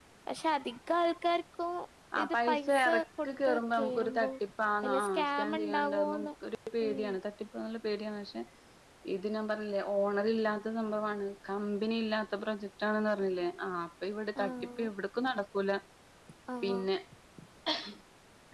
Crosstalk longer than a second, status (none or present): present